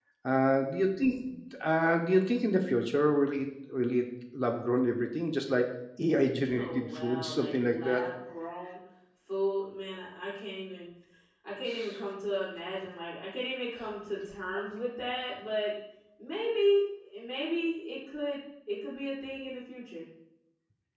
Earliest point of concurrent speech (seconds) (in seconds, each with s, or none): 6.4 s